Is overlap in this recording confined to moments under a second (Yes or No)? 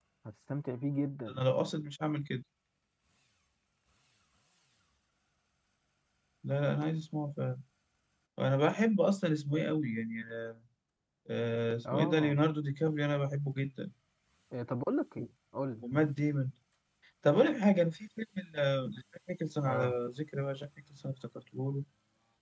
Yes